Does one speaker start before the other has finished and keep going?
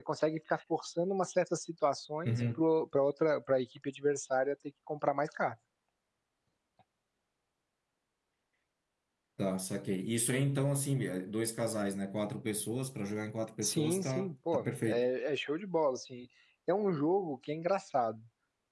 Yes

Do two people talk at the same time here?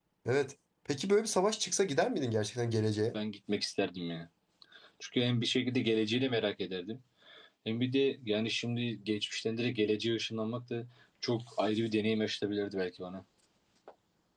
No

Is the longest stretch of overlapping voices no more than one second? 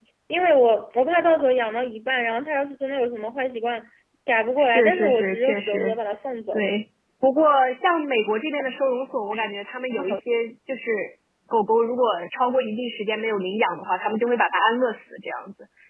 No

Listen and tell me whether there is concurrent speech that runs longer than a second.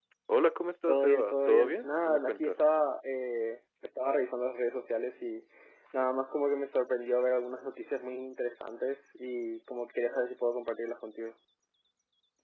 Yes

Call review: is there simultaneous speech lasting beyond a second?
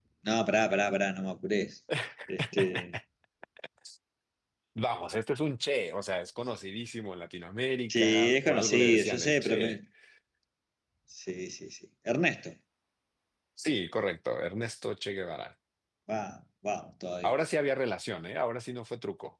Yes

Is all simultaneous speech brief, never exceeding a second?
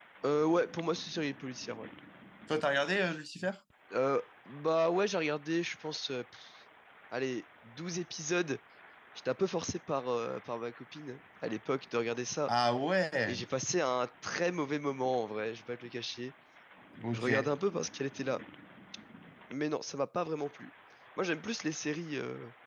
Yes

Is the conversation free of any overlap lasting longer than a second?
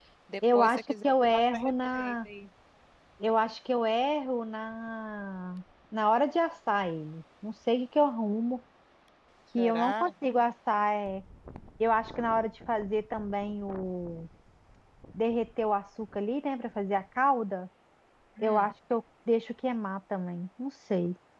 No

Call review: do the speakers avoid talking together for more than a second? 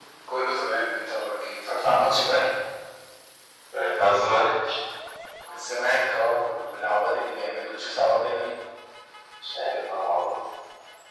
Yes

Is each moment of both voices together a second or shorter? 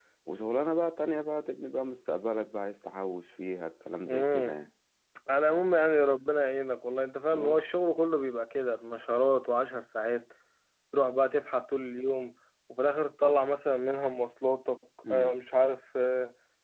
Yes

